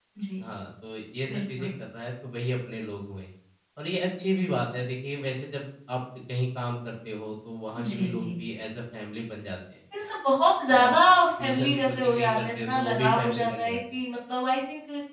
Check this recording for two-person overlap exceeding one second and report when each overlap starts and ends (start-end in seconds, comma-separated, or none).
11.4-13.8